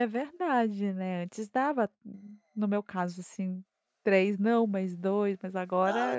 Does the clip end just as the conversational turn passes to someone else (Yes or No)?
Yes